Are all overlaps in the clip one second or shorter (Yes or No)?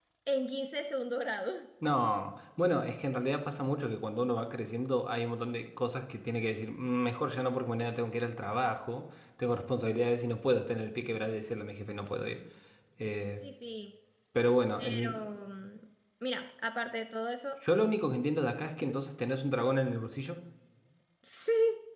Yes